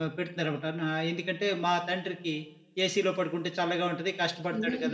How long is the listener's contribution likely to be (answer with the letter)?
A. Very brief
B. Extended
B